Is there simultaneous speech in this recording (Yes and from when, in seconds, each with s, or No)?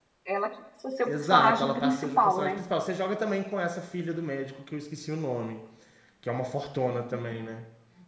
Yes, from 1.1 s